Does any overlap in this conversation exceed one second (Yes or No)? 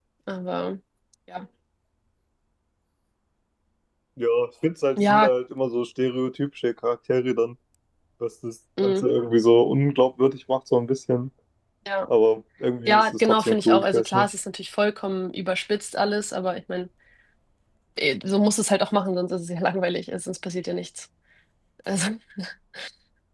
Yes